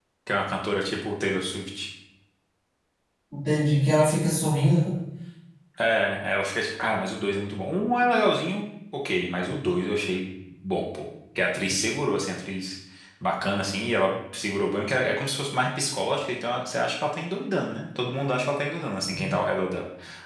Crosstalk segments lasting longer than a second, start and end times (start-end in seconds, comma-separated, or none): none